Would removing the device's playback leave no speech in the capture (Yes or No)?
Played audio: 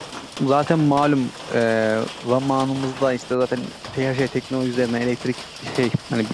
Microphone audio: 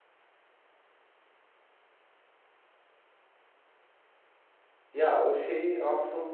No